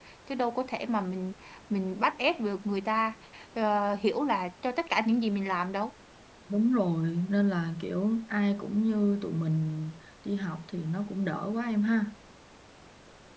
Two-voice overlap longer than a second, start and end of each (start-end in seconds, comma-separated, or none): none